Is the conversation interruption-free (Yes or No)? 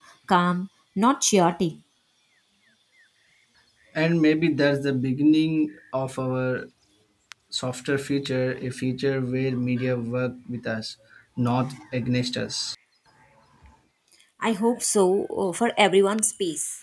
Yes